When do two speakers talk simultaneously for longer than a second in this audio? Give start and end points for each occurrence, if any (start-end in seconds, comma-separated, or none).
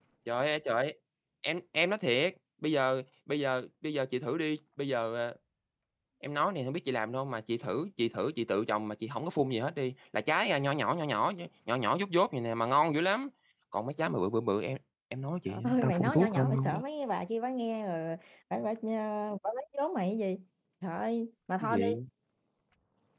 15.5-16.8